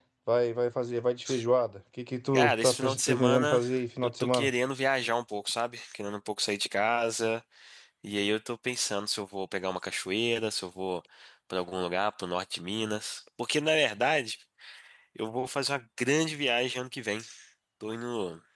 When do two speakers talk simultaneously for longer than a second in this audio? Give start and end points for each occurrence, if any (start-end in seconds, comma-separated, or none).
2.3-3.6